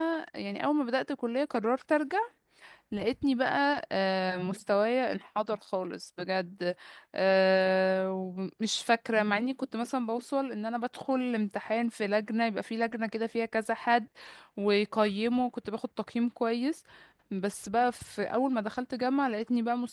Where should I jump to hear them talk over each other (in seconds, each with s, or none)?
none